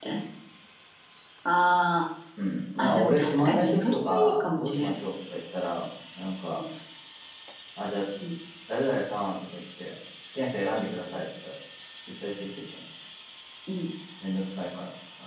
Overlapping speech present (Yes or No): Yes